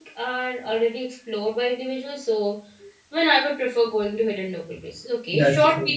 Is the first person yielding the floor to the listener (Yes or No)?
No